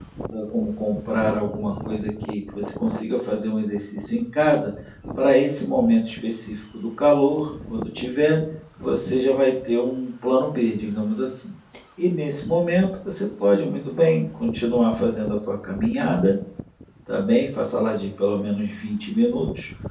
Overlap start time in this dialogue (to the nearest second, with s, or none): none